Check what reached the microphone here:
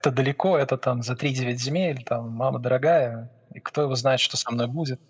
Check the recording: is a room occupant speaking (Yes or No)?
No